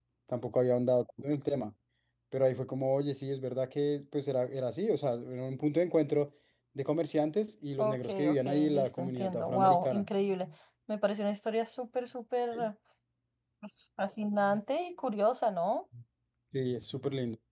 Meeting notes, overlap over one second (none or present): present